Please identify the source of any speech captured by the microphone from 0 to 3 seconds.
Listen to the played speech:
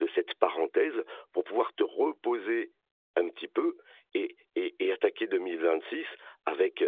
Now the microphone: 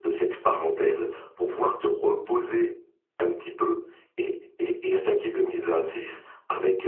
echo only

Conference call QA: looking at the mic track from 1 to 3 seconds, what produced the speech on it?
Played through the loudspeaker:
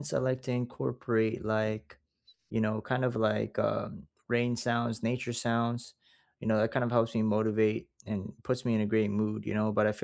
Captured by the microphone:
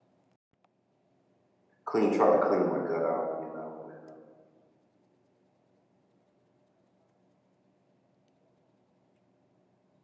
user only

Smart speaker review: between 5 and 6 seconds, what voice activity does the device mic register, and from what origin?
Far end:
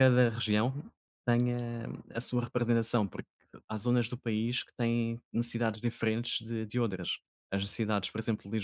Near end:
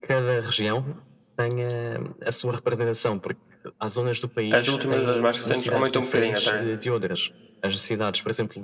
both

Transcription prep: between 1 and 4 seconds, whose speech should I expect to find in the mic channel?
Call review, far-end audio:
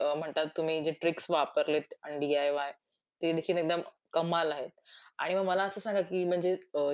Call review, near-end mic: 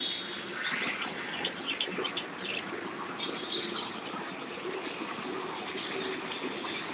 neither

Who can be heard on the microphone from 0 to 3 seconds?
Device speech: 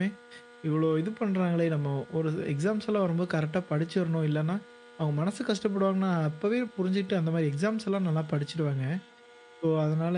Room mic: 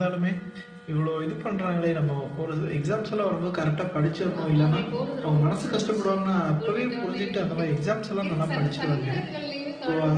echo only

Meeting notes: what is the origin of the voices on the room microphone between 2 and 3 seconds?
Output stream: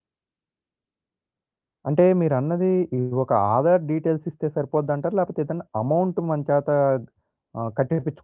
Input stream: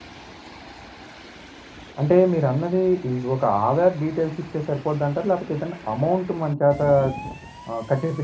echo only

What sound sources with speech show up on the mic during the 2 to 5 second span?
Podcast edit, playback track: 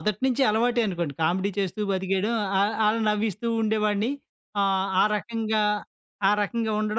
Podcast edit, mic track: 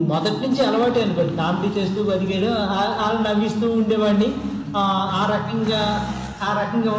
echo only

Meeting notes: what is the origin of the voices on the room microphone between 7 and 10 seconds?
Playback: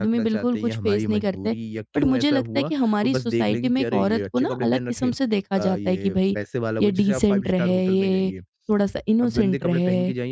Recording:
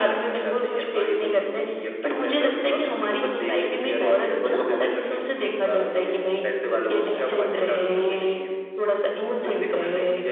echo only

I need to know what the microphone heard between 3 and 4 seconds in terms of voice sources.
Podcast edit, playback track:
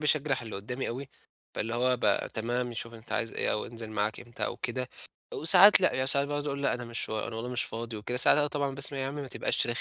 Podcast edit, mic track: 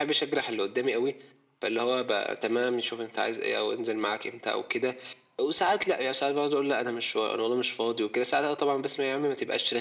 echo only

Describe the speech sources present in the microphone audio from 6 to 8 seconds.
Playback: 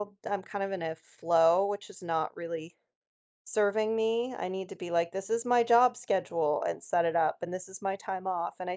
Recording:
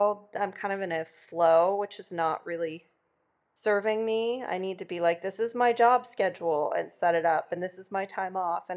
echo only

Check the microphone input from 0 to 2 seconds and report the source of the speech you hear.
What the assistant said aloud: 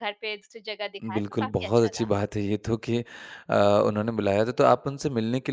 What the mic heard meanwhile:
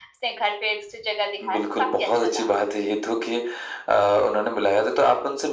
echo only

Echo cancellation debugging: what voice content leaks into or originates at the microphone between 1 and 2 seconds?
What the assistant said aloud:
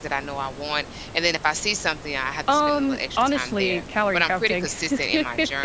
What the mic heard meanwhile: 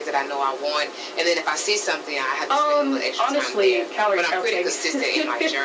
echo only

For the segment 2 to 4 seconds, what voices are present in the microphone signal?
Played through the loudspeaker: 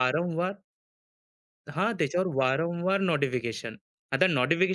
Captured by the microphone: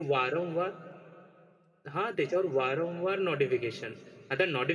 echo only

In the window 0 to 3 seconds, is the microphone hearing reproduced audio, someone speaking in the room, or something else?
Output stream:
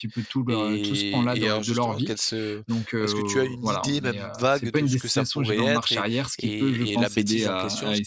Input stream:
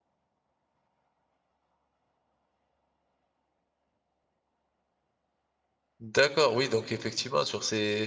neither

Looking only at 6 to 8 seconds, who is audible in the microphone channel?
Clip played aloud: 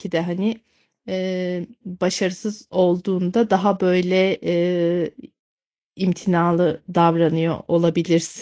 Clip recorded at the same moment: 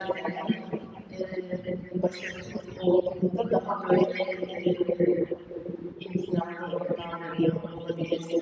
echo only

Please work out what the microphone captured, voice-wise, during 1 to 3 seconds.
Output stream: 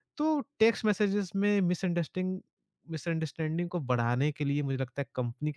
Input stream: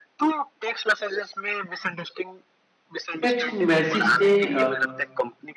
echo only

